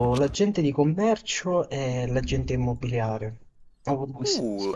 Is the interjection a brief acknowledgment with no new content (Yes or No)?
No